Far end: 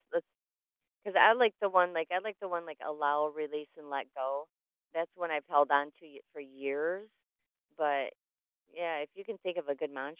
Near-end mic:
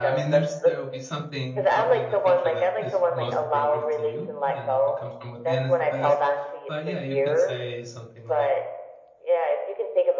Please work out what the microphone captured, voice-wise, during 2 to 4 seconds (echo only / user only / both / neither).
both